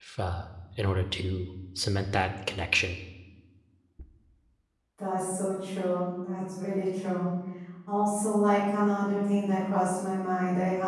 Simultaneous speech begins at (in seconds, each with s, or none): none